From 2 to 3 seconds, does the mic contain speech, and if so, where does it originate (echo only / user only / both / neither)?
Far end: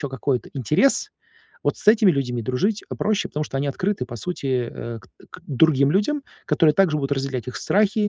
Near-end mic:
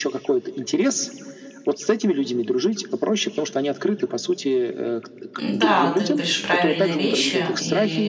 echo only